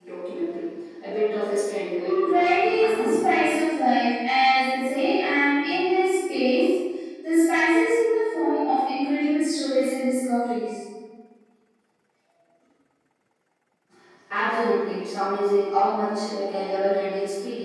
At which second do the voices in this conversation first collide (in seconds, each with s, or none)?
2.0 s